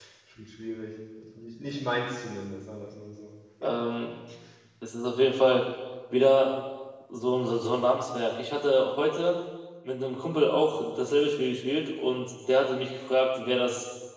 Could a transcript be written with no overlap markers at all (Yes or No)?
Yes